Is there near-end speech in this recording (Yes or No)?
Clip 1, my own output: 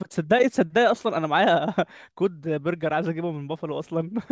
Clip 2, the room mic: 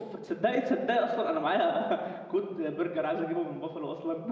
No